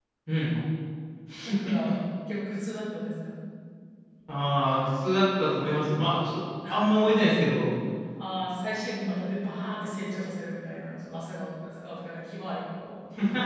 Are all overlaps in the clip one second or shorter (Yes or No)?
Yes